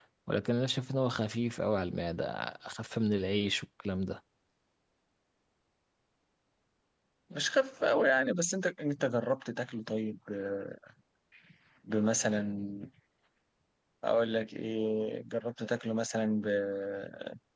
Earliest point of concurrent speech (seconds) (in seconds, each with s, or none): none